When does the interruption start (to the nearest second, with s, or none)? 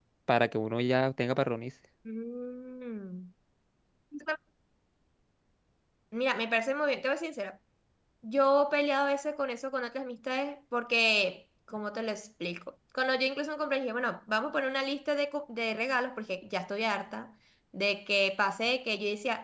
none